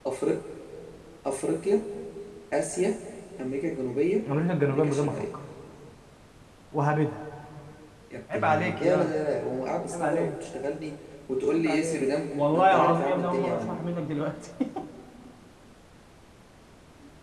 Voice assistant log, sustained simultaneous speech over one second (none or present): present